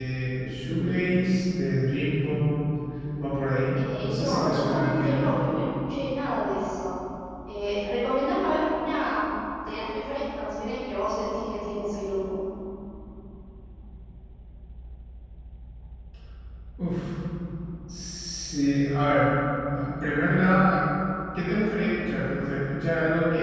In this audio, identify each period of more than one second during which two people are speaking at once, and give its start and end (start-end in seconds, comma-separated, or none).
3.7-5.3